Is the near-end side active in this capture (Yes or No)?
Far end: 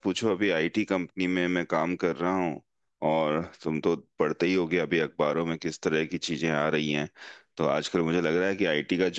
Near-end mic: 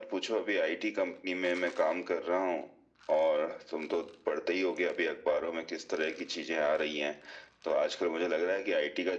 No